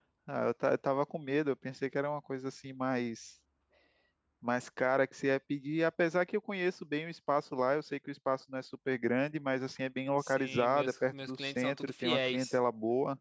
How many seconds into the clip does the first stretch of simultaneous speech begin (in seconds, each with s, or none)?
10.2 s